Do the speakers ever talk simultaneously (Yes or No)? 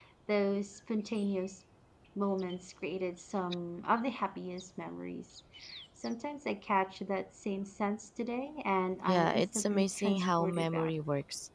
Yes